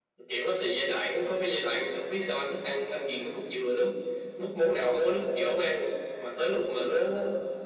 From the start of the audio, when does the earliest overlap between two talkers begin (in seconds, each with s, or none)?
none